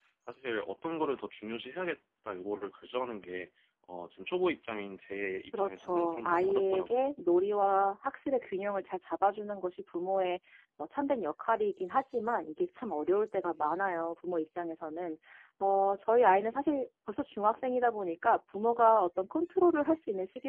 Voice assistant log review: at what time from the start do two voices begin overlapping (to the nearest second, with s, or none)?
6 s